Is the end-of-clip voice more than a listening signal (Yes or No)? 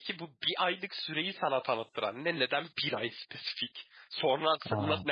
No